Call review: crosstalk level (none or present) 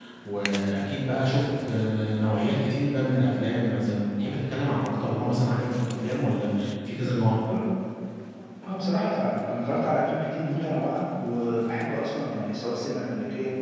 none